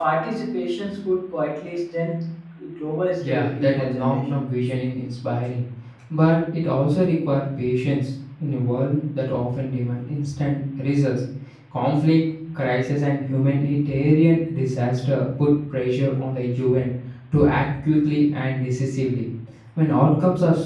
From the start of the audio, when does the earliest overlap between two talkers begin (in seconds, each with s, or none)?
3.2 s